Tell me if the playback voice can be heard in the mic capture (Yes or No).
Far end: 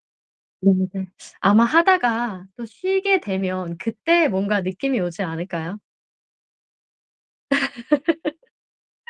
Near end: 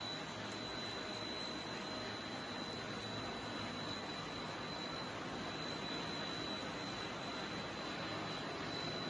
No